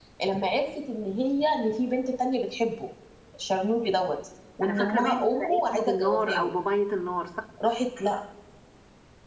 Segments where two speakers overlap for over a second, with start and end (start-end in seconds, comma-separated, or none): 4.6-6.5